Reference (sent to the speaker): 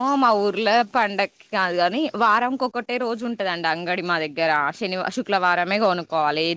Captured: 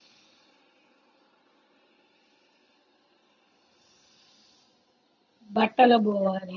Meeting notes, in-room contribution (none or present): present